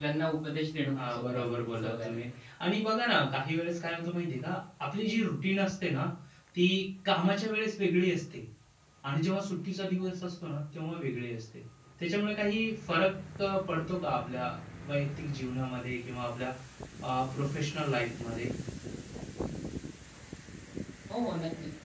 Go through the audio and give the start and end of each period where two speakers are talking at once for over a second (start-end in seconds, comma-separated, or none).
1.0-2.2